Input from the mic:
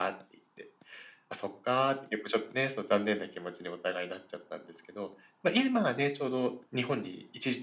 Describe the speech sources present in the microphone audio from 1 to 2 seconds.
echo only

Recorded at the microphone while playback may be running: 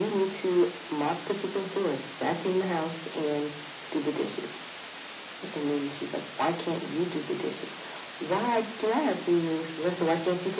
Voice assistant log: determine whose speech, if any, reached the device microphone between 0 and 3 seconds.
echo only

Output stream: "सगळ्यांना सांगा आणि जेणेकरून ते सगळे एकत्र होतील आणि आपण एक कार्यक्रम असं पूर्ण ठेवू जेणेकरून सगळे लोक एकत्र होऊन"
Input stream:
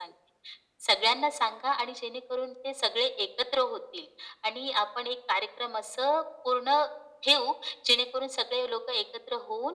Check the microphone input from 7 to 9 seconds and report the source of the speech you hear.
echo only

